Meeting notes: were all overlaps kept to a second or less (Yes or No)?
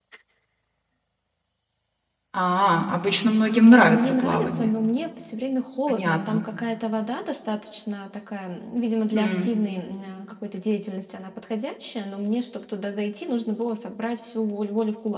No